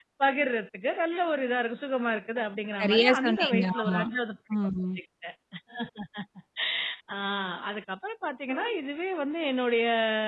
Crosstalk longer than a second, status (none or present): present